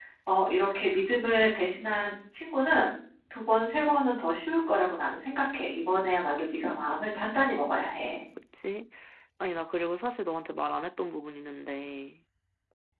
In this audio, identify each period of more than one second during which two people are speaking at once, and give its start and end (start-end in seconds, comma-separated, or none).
none